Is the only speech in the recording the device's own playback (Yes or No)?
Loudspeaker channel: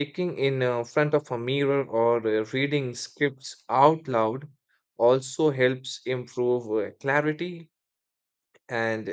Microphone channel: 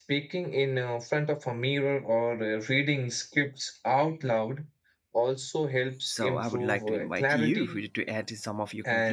No